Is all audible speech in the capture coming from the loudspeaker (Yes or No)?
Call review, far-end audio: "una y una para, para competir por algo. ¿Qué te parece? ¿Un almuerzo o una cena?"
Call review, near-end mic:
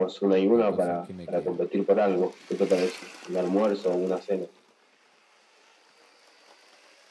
No